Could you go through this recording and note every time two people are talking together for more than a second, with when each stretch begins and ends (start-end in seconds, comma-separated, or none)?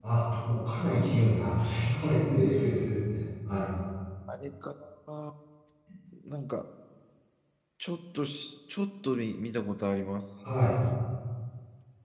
none